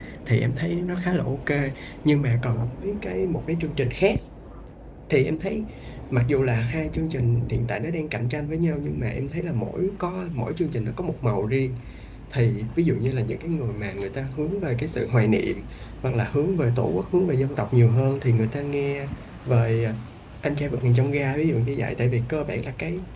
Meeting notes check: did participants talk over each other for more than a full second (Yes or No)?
No